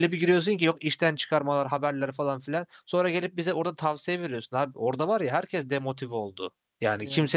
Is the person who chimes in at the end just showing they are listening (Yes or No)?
Yes